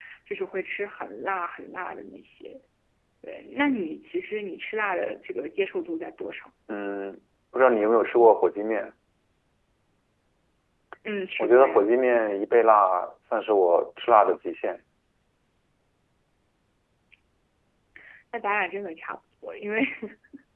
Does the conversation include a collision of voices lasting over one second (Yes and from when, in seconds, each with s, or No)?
No